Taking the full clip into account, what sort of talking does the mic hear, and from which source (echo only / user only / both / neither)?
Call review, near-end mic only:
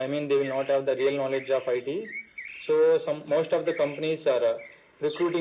echo only